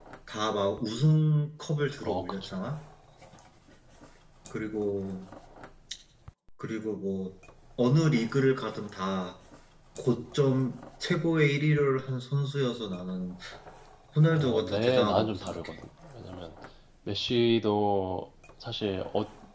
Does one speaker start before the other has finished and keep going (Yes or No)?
Yes